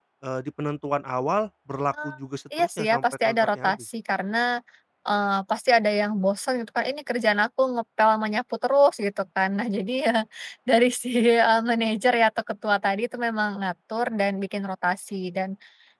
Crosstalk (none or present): present